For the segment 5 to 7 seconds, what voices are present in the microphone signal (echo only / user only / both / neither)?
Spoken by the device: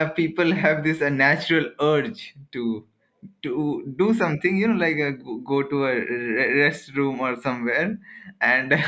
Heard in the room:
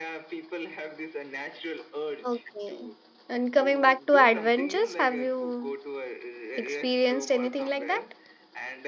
both